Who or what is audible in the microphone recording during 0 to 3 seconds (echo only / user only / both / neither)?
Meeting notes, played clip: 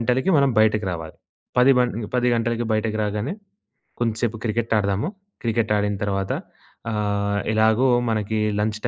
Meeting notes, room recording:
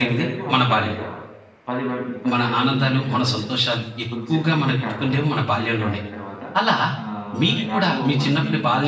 both